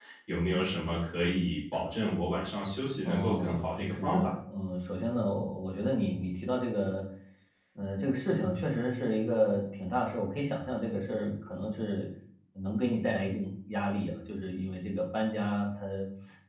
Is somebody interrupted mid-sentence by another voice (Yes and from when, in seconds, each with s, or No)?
Yes, from 3.0 s